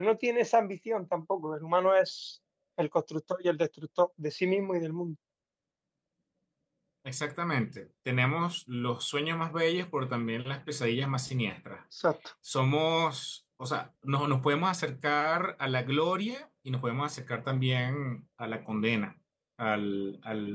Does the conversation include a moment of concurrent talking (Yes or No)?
No